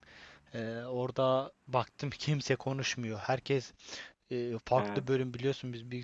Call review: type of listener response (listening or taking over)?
listening